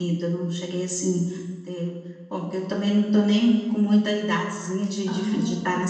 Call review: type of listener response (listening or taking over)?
listening